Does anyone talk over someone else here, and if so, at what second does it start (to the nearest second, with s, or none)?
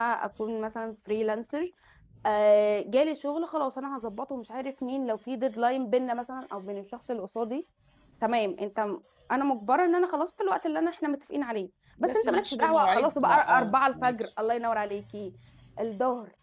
12 s